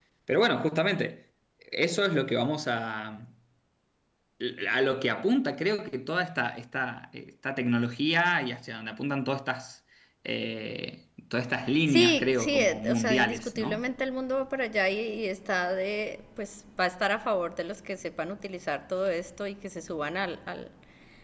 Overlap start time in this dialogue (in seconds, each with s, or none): 11.8 s